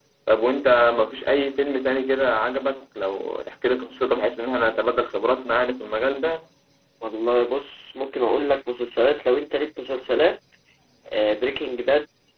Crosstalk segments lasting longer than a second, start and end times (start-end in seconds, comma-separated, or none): none